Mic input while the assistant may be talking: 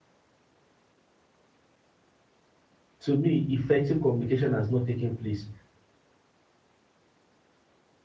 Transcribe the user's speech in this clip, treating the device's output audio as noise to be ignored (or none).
to me effective communication has not taken place